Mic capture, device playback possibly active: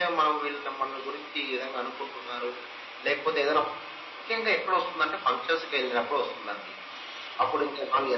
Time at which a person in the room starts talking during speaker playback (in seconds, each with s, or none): none